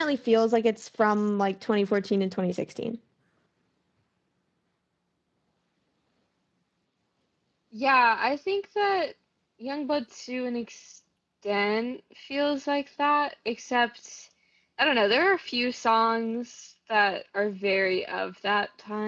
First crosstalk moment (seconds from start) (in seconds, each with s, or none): none